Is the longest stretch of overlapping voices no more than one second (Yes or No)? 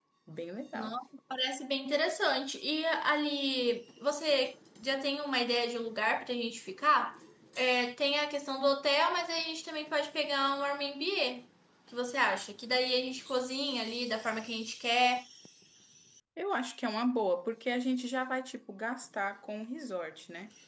Yes